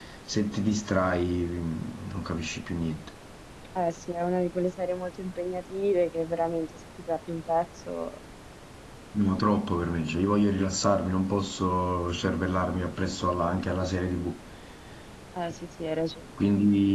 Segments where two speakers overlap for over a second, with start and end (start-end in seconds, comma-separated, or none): none